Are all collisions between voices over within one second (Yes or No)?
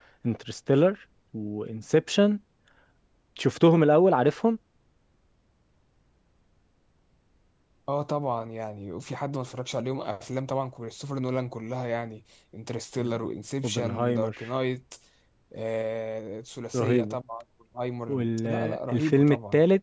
No